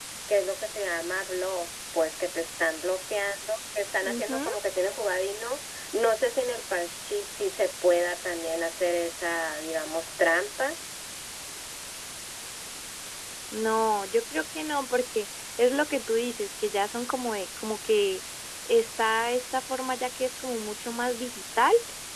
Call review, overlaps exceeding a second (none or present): none